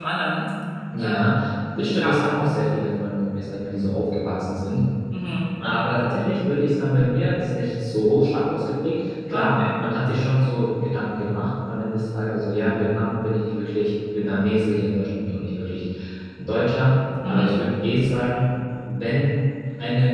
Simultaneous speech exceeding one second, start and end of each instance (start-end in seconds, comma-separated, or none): none